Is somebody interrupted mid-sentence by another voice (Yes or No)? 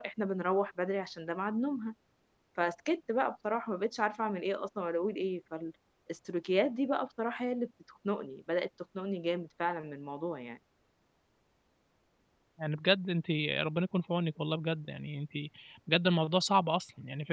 No